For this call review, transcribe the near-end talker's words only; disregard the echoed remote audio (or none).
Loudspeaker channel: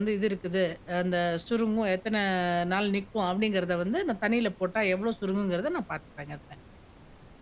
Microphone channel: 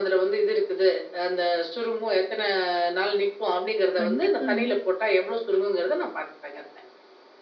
கண்டிப்பாங்க.